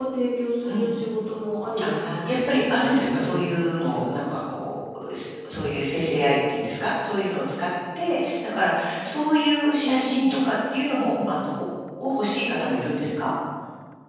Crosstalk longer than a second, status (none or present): present